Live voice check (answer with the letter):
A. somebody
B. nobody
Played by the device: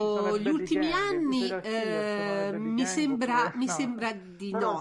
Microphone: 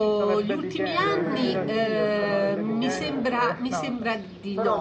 A